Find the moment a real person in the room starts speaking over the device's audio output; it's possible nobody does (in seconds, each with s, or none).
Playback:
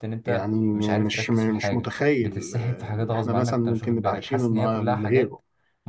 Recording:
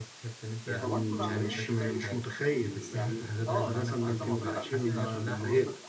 0.8 s